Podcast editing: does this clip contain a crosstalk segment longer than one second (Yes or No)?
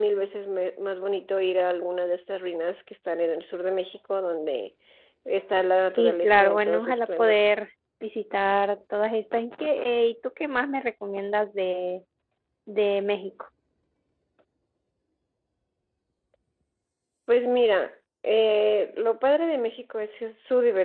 Yes